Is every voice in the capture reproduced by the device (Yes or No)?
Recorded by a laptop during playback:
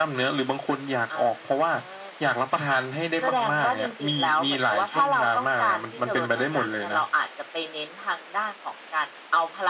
Yes